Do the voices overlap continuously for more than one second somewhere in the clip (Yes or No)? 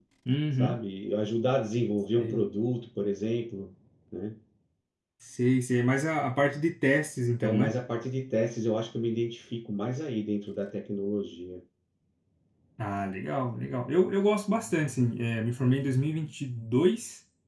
No